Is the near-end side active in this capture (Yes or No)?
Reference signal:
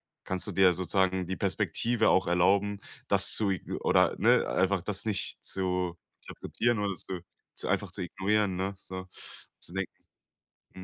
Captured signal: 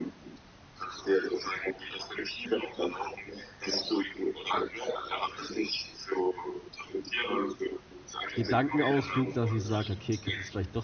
Yes